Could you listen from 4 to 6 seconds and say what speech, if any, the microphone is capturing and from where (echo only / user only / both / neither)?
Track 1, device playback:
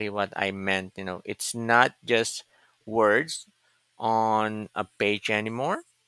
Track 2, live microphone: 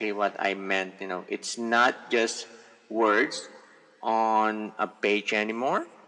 echo only